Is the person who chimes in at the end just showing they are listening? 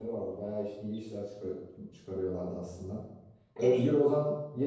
Yes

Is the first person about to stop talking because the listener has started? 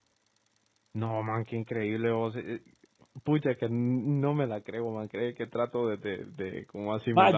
Yes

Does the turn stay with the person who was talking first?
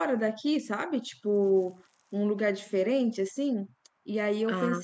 Yes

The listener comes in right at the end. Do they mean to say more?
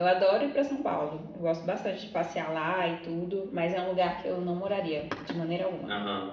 Yes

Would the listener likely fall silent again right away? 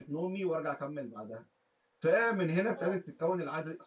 Yes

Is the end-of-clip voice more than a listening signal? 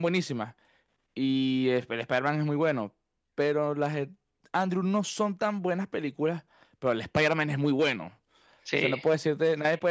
No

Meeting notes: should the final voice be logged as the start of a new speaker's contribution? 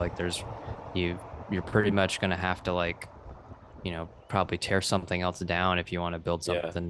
Yes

